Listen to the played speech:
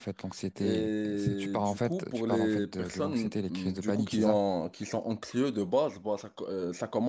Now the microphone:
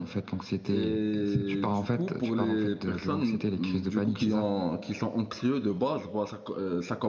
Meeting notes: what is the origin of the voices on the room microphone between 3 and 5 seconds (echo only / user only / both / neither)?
echo only